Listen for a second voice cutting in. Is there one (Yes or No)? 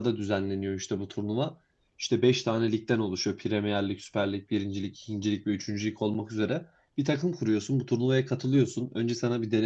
No